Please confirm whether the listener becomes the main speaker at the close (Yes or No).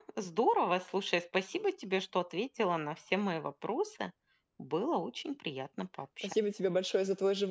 Yes